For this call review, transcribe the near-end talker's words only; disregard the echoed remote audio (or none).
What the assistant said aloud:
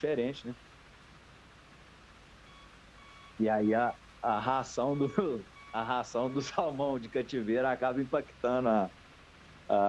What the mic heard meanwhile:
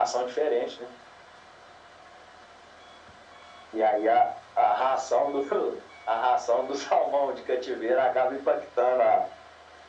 none